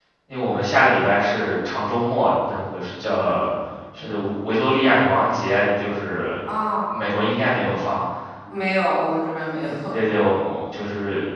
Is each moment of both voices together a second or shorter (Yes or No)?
Yes